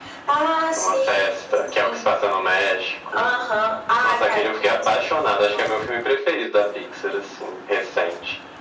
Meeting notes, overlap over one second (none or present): present